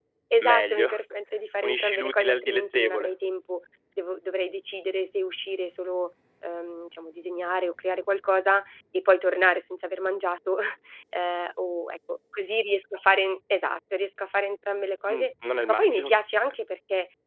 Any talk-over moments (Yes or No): Yes